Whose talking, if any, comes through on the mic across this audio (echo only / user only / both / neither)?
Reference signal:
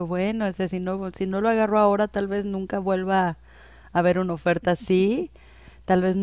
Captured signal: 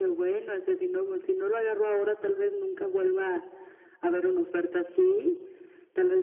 echo only